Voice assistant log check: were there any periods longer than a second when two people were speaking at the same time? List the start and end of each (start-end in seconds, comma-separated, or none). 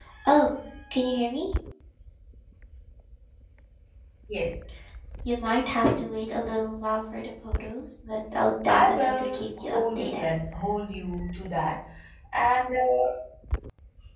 8.7-10.3